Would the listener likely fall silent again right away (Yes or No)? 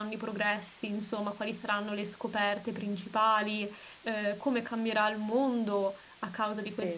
Yes